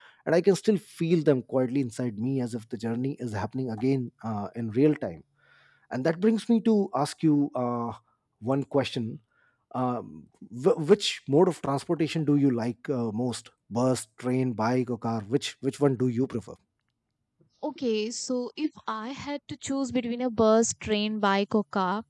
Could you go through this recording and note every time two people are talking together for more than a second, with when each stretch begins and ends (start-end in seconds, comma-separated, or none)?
none